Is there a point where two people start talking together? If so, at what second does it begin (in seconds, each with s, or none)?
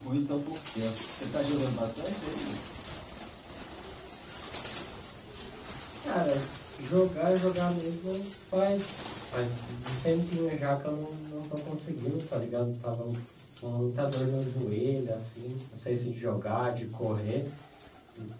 none